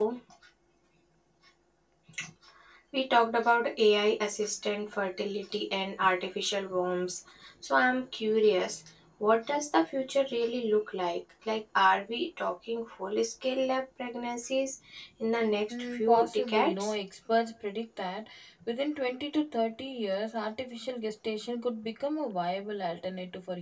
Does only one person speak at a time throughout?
No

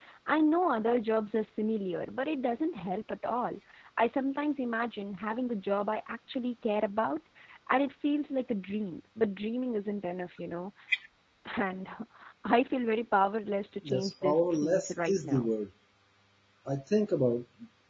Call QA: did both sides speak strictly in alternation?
No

